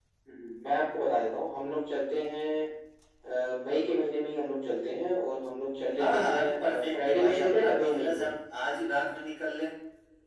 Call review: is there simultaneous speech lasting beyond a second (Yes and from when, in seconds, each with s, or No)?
Yes, from 6.0 s